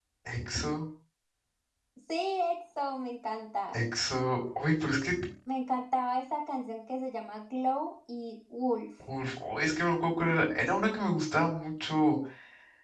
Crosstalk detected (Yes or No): No